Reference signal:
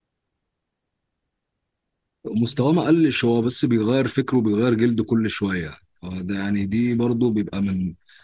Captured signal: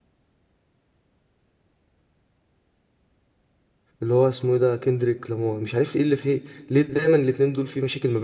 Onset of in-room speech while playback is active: 4.0 s

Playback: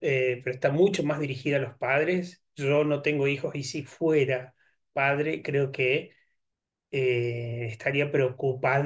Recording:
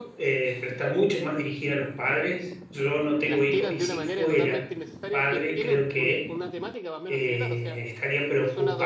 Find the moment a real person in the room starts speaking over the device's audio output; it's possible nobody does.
3.2 s

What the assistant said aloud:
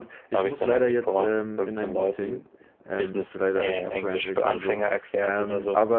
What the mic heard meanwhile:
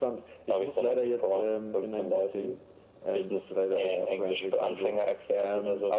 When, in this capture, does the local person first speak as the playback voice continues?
none

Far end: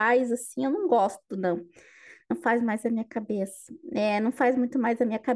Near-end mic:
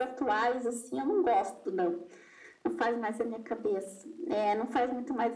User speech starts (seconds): none

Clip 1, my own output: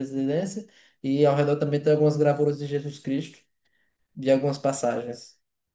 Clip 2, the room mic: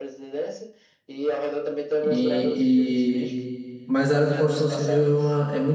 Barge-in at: 2.0 s

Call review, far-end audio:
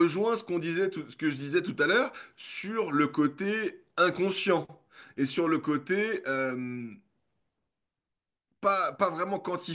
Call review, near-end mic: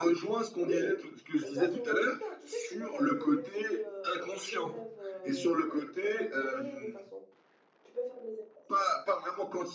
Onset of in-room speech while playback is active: 0.6 s

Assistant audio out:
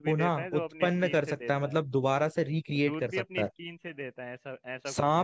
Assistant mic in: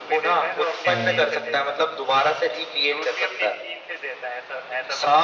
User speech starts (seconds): 0.9 s

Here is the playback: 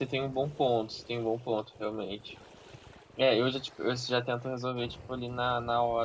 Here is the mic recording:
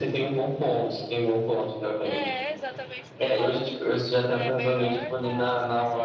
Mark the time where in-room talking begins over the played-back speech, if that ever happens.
2.0 s

